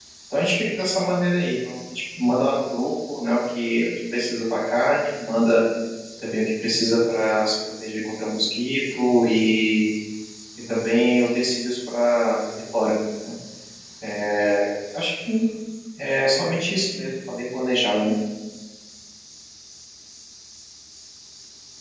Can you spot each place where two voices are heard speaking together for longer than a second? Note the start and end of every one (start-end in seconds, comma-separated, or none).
none